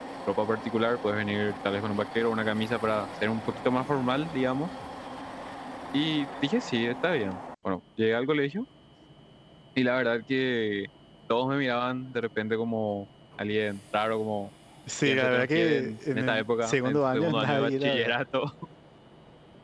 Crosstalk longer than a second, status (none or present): present